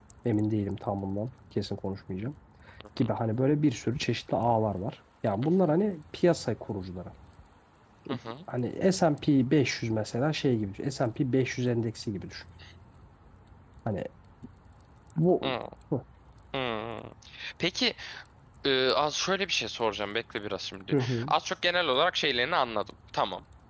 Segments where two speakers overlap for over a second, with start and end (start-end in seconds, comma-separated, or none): none